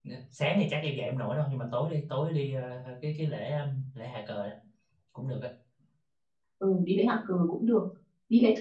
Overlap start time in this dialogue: none

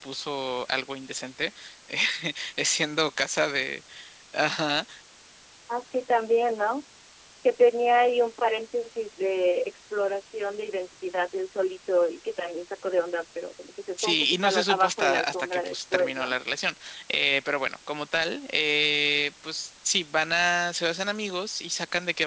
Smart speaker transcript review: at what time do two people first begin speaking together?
14.0 s

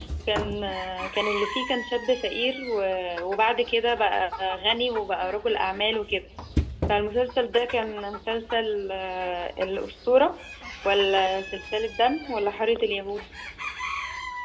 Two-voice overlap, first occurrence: none

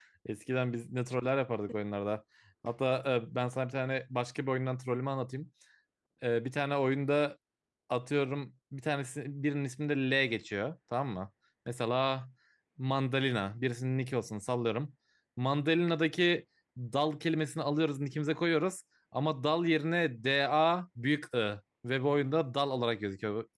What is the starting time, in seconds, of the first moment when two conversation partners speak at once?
none

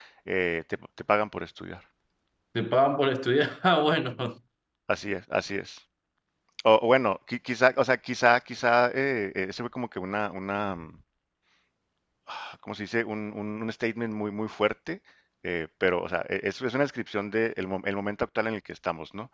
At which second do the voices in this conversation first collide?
none

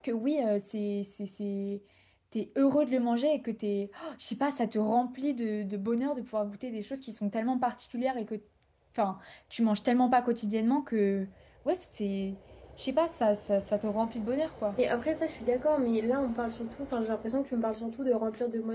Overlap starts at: none

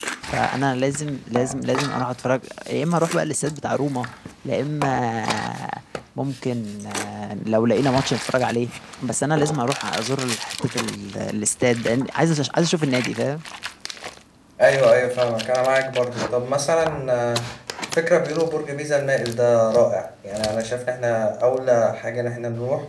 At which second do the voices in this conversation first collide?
none

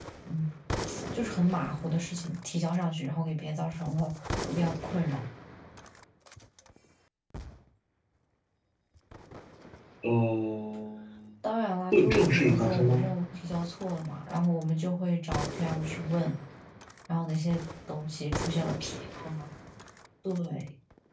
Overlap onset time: 11.9 s

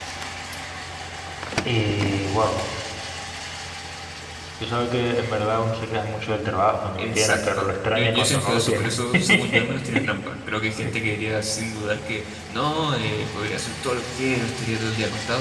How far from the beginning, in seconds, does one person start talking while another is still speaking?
7.0 s

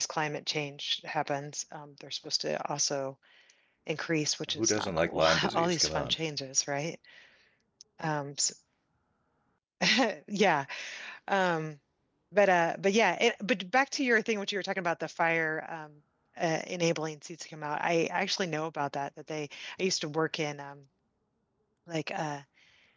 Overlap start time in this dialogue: 4.5 s

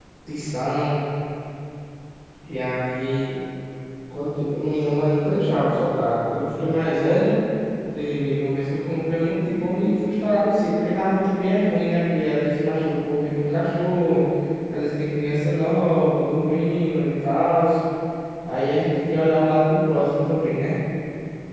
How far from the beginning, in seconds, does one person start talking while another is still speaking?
none

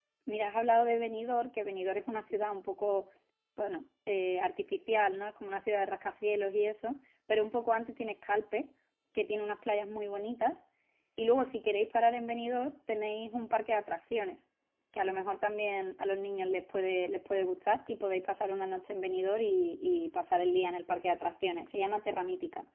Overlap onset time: none

